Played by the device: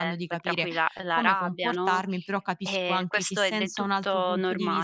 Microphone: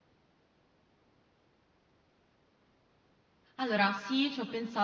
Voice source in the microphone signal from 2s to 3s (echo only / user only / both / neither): neither